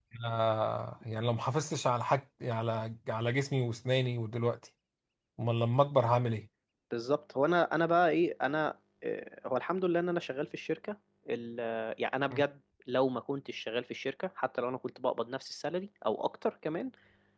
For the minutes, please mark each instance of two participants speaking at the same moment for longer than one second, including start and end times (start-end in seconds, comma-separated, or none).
none